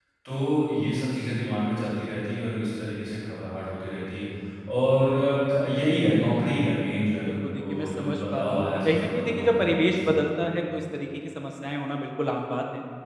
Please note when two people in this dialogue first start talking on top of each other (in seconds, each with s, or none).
7.3 s